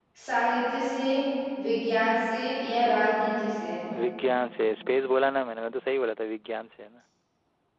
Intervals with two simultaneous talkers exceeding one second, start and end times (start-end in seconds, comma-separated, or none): none